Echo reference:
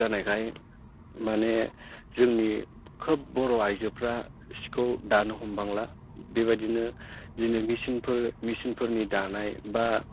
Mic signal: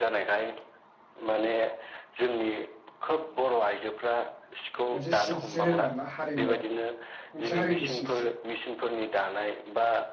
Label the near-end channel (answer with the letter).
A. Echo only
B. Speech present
B